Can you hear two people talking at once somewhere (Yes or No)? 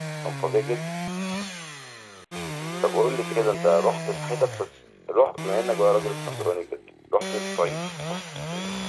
Yes